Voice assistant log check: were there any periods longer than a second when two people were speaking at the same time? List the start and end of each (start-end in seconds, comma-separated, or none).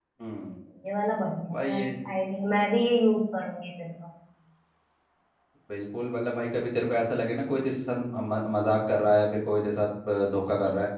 none